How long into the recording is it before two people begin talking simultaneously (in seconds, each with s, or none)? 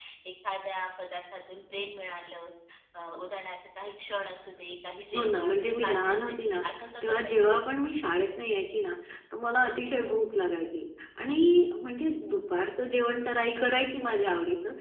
5.1 s